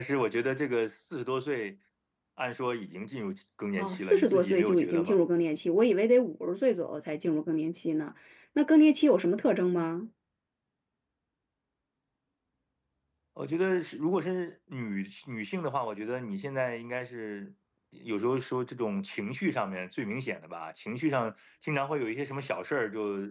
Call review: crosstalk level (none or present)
present